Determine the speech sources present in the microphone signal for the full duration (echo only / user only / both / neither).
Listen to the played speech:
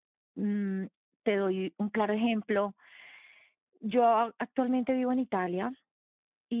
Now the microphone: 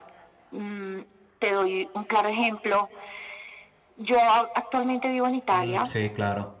both